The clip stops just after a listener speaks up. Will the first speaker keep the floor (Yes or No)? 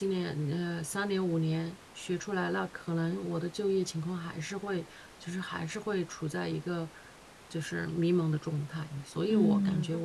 Yes